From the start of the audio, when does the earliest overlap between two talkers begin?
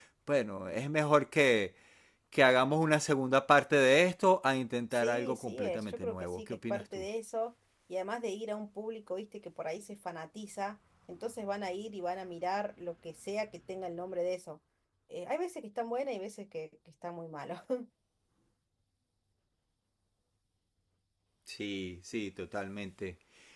5 s

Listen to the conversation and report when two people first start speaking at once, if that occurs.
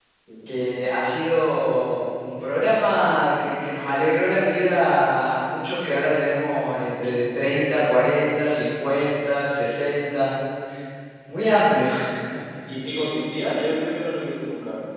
none

